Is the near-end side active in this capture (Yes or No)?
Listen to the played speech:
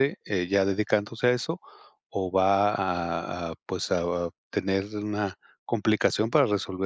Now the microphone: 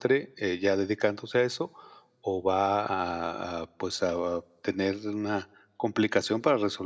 No